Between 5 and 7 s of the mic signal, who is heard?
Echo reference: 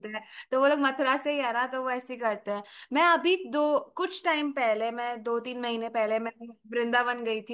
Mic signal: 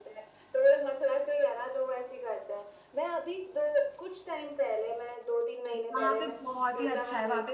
both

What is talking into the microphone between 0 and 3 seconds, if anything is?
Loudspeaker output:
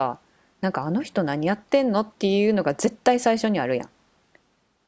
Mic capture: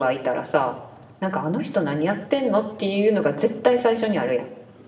echo only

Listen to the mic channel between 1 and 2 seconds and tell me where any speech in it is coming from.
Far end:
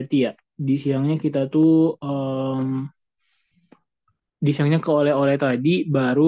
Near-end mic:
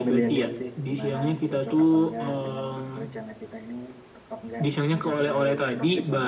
both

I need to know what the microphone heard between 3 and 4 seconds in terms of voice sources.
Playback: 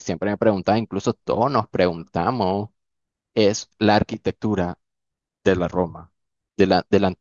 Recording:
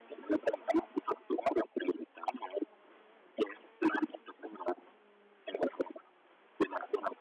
echo only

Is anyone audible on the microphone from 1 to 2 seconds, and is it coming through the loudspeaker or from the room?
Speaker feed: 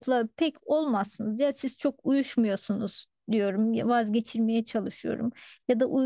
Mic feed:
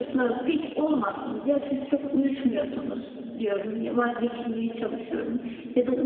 echo only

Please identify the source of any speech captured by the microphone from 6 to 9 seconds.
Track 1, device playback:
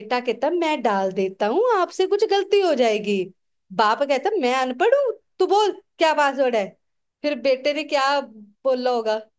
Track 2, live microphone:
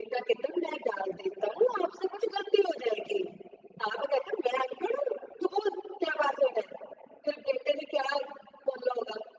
echo only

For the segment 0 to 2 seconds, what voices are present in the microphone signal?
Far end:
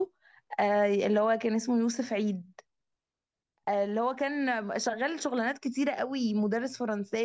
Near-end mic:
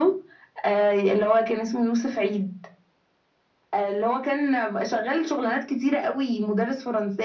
echo only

